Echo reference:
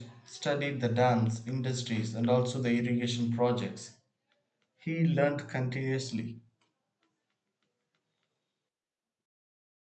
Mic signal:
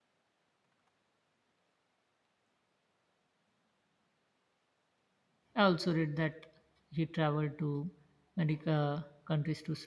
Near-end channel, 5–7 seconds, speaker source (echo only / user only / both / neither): user only